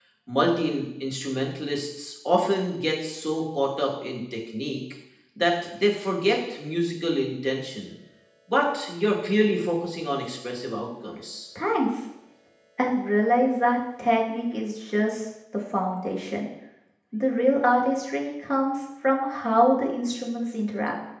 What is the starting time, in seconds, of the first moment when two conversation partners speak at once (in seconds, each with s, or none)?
none